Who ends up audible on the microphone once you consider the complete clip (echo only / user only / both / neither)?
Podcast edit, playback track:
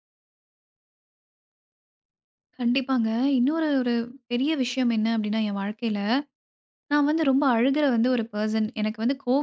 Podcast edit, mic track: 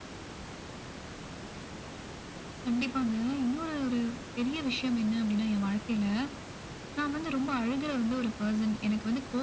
echo only